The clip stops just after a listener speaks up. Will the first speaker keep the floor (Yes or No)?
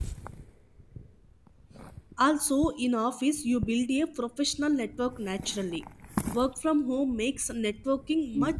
No